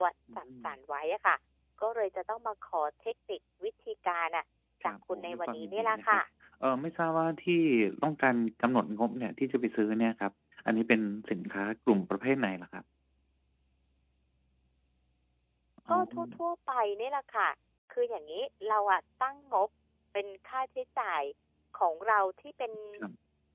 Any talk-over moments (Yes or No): Yes